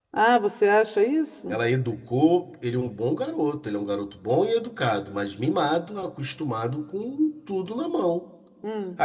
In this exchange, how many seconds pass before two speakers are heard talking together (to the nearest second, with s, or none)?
none